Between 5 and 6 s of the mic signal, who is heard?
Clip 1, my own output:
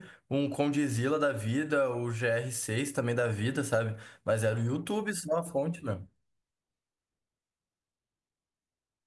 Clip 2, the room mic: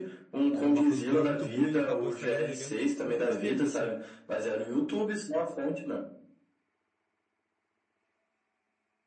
echo only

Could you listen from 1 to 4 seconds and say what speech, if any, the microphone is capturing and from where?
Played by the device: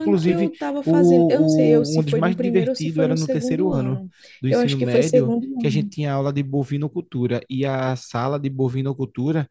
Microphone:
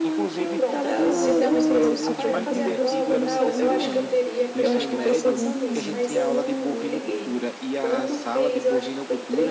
both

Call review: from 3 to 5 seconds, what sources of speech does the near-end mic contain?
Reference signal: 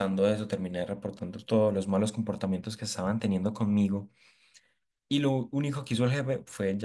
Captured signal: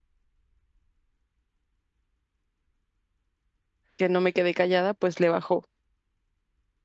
user only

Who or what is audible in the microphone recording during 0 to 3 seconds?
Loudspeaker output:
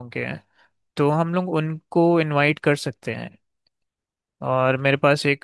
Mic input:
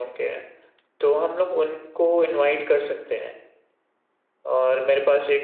echo only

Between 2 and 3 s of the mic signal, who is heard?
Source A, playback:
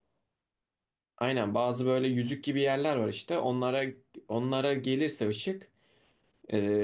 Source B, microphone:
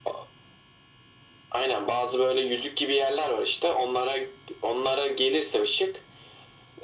echo only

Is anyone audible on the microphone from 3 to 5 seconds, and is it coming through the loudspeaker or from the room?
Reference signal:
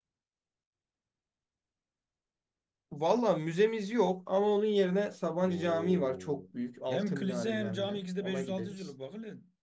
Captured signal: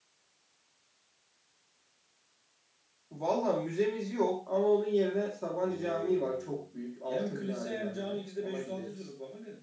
echo only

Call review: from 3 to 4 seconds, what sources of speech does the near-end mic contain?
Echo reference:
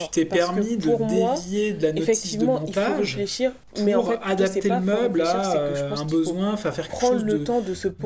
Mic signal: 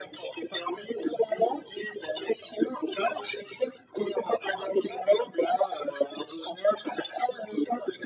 echo only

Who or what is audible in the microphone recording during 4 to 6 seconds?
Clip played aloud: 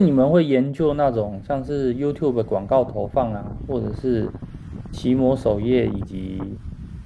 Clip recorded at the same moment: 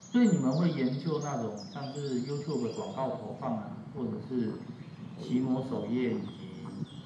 echo only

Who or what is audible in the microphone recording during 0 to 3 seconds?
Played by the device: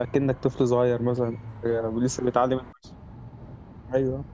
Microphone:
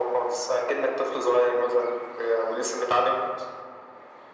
echo only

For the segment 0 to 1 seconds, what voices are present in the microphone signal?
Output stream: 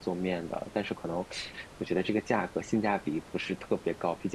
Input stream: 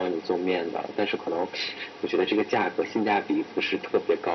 echo only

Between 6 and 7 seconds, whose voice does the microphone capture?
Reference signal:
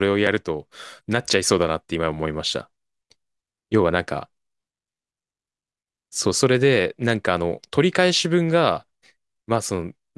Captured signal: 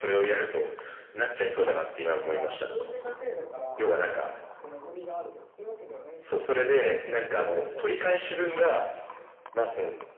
both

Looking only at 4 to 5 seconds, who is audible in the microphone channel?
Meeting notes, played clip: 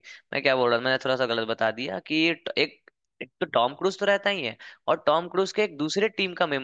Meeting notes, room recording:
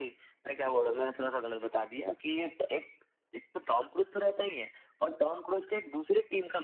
echo only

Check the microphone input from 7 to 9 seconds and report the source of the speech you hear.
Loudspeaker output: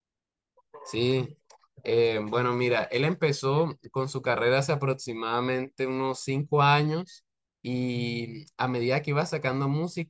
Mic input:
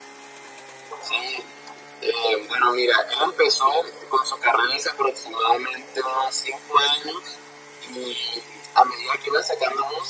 echo only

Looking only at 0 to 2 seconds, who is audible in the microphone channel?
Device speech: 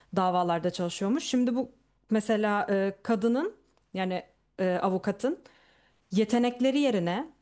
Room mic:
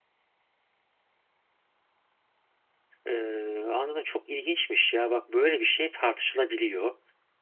neither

